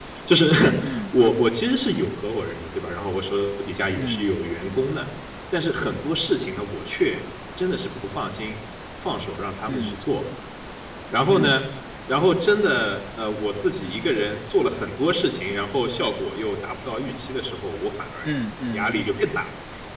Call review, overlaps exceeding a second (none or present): none